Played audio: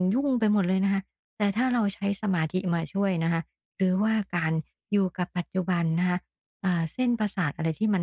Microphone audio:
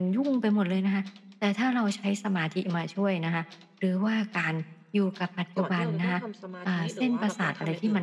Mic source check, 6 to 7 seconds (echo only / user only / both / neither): both